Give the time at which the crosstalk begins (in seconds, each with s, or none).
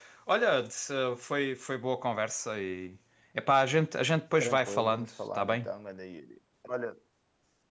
4.4 s